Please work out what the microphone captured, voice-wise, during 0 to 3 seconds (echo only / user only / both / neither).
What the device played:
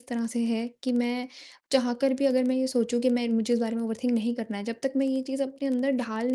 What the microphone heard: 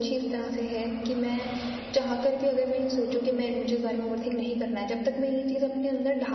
echo only